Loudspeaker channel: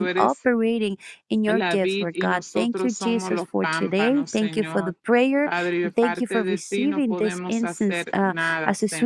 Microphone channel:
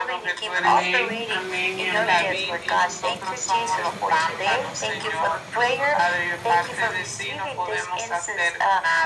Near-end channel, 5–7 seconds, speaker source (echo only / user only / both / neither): echo only